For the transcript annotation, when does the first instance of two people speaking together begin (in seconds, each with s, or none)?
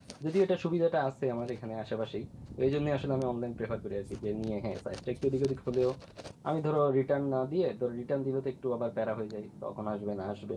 none